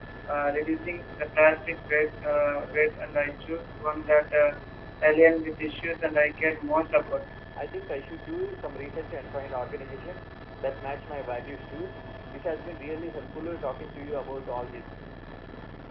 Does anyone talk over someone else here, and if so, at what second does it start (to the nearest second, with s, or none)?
none